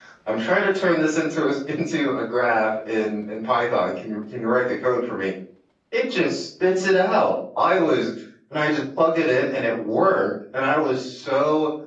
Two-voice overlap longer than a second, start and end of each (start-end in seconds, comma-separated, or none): none